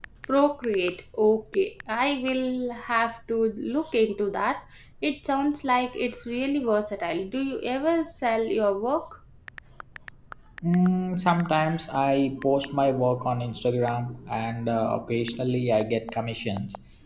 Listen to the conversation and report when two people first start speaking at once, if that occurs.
none

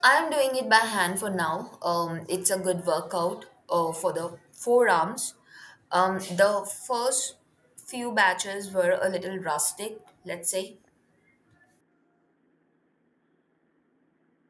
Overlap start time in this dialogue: none

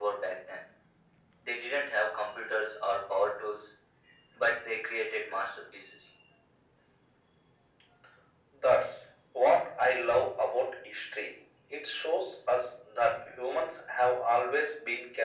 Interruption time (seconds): none

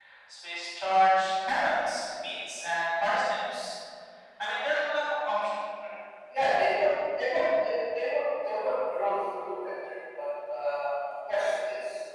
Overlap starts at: none

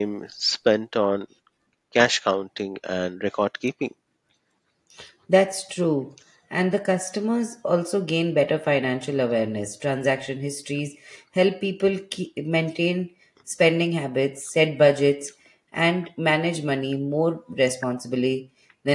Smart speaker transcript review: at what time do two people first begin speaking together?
none

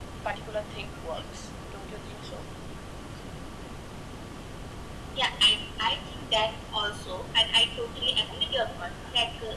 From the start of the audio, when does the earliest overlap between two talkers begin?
none

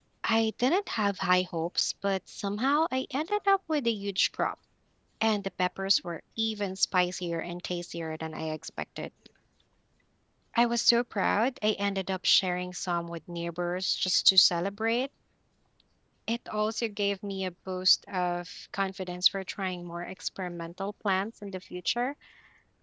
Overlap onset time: none

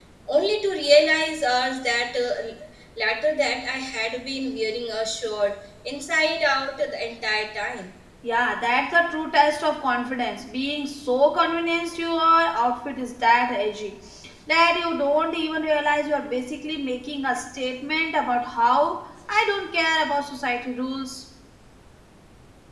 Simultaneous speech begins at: none

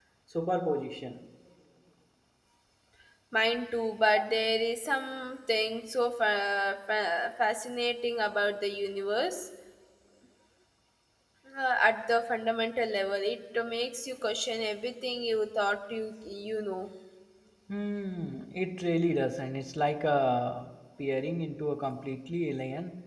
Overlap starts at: none

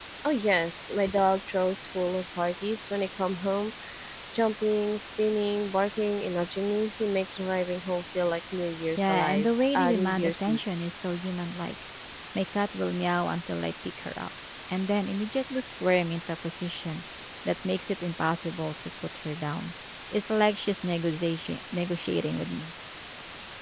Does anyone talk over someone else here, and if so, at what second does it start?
9.0 s

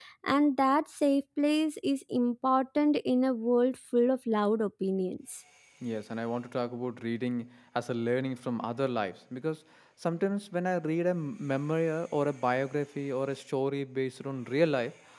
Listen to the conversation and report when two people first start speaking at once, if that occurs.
none

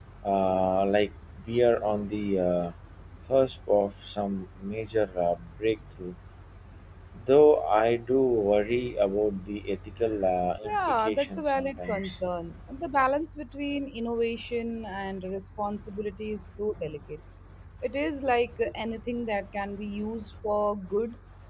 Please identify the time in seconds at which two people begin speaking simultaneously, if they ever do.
10.6 s

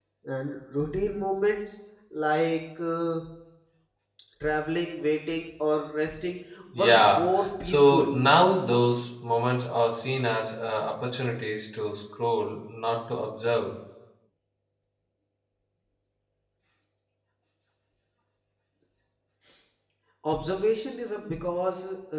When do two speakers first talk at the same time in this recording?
6.7 s

